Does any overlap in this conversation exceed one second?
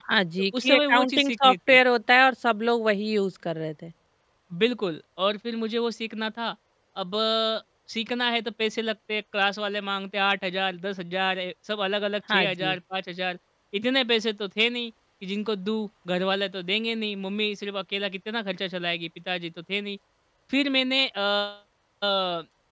Yes, from 0.5 s

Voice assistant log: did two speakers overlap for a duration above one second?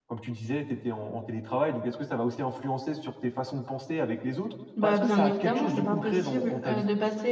Yes, from 4.8 s

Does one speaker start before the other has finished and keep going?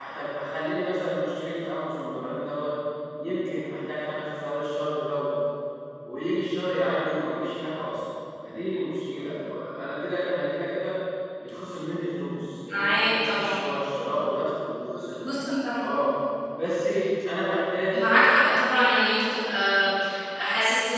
Yes, from 12.7 s

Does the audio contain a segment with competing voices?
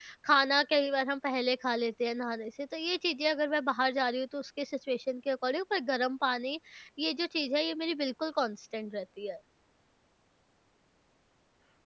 No

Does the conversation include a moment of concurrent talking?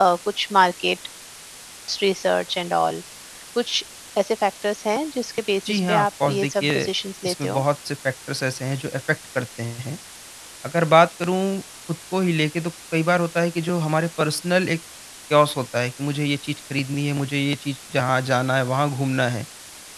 Yes, from 5.6 s

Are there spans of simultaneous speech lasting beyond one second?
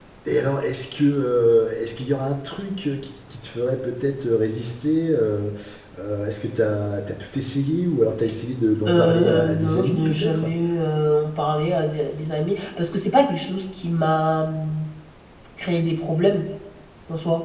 Yes, from 8.8 s

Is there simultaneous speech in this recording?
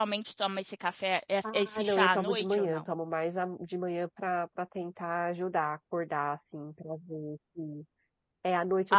Yes, from 1.4 s

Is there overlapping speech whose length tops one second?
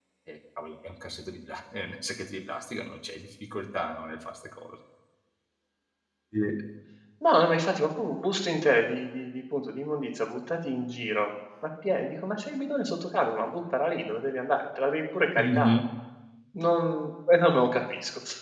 No

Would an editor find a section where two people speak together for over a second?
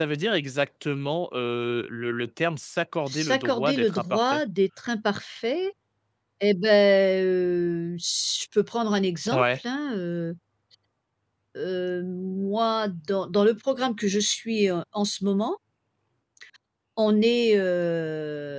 Yes, from 3.1 s

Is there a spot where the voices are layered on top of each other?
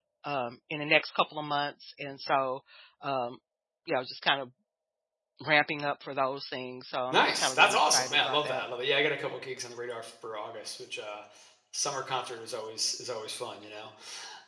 Yes, from 7.1 s

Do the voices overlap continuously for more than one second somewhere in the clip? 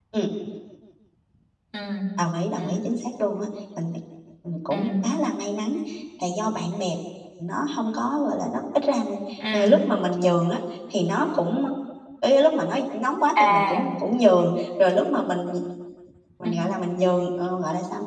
No

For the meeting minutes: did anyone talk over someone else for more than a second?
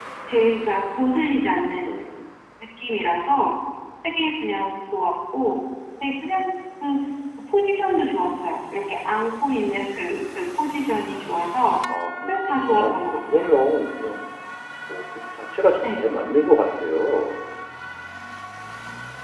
Yes, from 12.3 s

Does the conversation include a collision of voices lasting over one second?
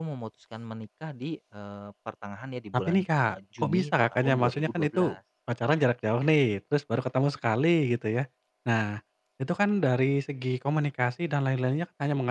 Yes, from 2.7 s

